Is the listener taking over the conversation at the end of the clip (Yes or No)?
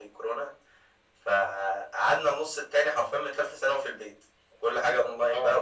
No